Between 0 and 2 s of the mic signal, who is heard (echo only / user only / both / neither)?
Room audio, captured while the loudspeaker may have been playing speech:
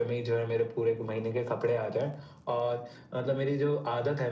echo only